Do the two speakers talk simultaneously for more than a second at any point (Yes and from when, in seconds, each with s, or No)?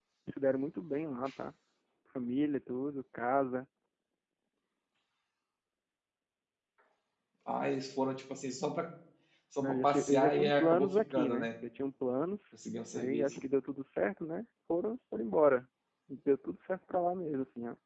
Yes, from 9.6 s